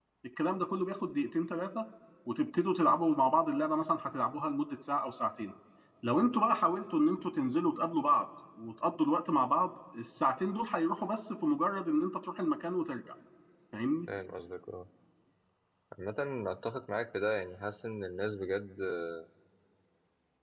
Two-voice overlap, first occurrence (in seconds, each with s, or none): none